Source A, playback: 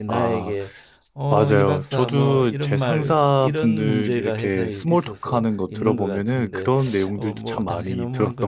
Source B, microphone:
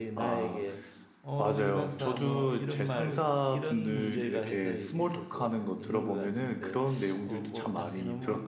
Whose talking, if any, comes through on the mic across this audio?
echo only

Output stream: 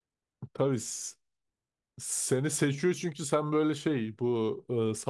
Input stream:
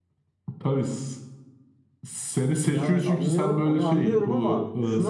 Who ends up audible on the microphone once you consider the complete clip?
both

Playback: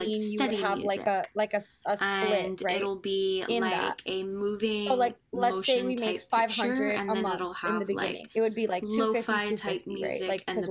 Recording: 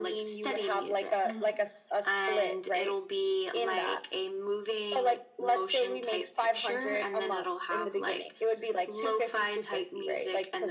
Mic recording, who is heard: both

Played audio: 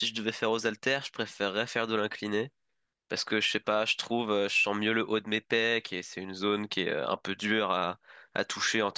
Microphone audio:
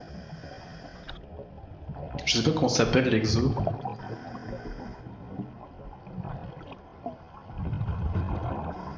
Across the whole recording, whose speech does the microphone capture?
user only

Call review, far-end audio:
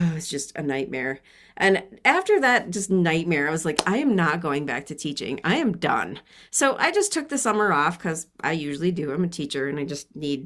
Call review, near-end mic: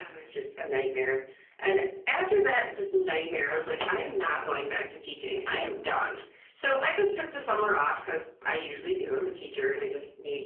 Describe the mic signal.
echo only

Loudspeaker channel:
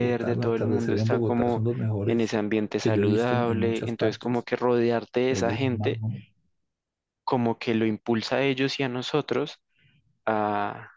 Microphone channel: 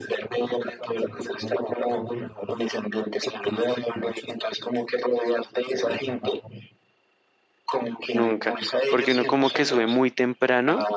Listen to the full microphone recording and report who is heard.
both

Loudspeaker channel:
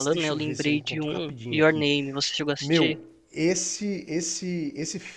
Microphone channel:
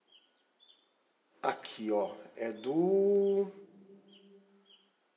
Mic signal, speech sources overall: user only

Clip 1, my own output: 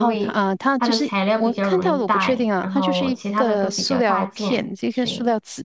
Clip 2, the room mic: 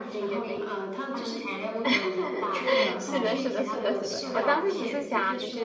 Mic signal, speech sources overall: both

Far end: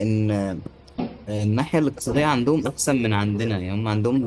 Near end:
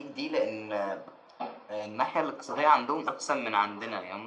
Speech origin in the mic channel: echo only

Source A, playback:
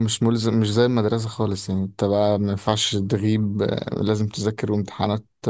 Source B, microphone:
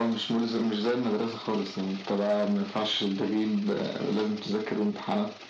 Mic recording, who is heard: echo only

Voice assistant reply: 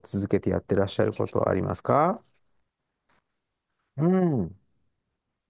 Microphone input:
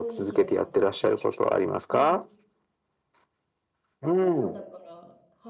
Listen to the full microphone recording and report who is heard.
both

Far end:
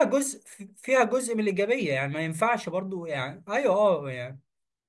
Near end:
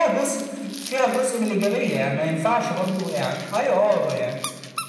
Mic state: echo only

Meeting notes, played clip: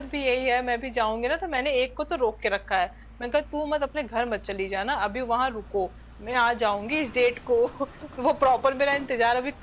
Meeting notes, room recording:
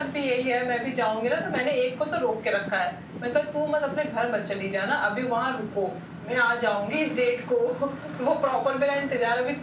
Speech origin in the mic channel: echo only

